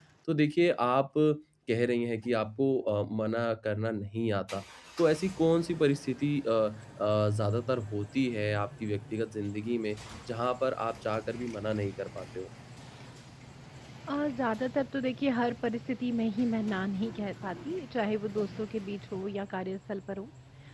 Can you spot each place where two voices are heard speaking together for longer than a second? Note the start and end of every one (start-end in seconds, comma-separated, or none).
none